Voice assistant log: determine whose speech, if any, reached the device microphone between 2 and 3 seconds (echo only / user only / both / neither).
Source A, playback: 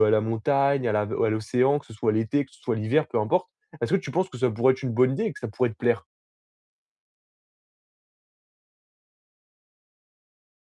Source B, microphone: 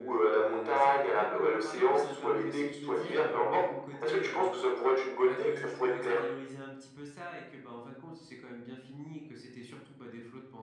both